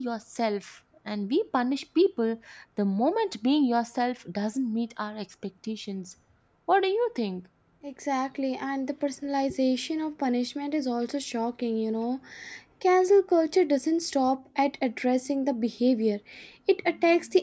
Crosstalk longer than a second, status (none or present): none